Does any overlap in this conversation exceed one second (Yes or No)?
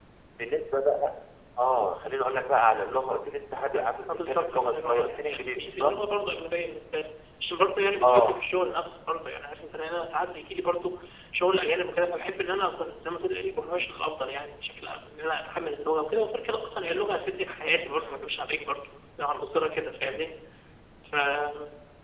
Yes